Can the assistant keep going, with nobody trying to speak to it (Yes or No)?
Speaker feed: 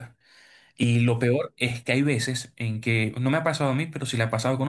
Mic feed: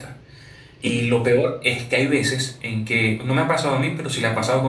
No